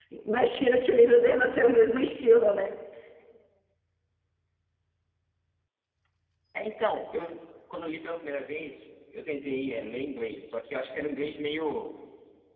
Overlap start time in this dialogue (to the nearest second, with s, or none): none